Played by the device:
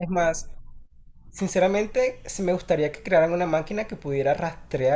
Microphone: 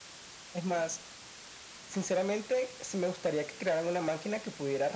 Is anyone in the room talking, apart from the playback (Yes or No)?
No